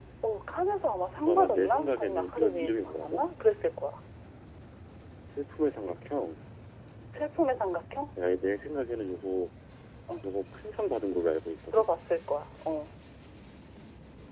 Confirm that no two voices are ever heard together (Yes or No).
No